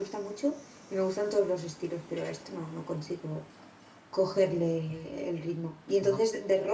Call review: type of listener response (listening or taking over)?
listening